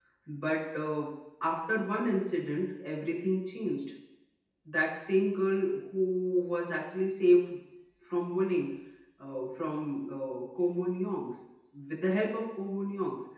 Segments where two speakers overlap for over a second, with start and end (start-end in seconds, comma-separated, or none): none